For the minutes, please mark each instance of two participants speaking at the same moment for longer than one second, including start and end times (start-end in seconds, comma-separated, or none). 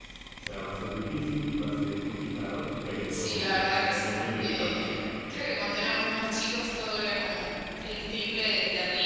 3.1-5.1